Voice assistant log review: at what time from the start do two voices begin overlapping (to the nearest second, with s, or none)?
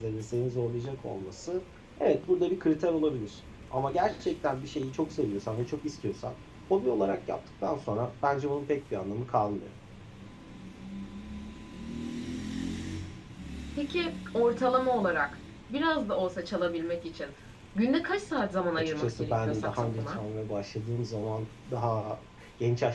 19 s